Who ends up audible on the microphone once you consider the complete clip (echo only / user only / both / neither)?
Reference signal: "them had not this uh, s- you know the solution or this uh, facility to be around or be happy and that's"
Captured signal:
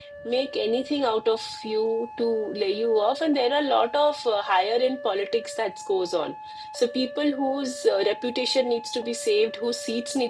user only